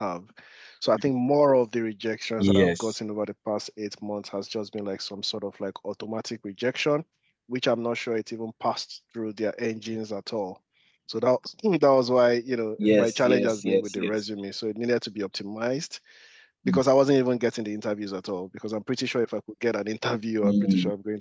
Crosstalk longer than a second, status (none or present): present